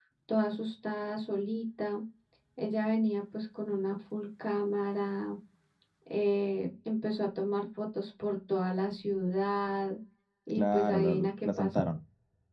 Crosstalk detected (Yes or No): Yes